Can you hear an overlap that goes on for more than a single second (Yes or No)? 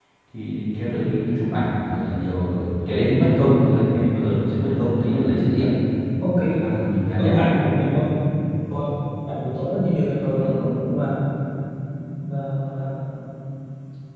No